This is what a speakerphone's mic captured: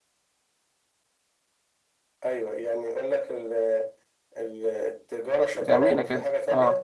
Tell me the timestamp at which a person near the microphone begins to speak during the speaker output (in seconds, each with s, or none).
5.5 s